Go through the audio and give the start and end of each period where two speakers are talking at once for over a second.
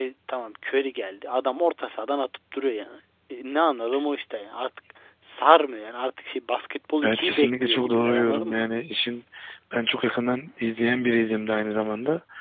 7.0-8.6

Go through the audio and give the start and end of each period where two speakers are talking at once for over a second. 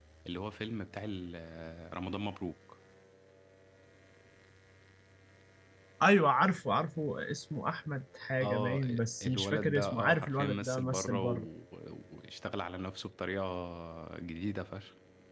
9.2-11.5

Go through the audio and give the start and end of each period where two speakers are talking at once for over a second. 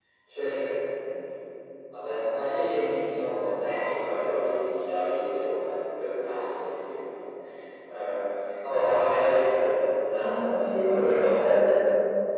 10.1-11.4

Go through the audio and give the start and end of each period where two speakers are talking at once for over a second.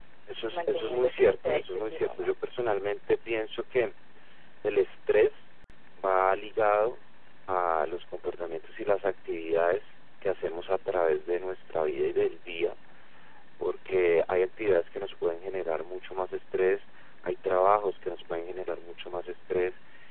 0.5-2.3

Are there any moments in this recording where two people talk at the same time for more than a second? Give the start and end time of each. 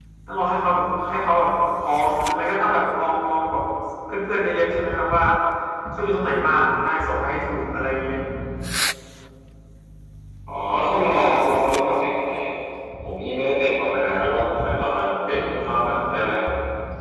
none

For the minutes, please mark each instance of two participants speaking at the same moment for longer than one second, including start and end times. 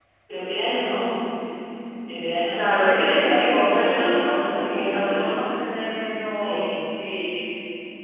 2.5-5.4

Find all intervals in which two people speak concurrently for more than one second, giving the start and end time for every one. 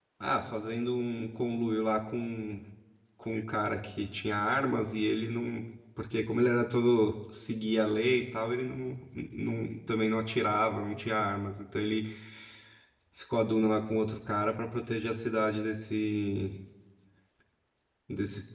none

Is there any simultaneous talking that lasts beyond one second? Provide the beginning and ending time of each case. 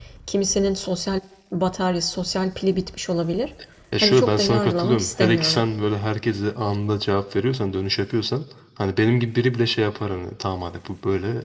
4.0-5.6

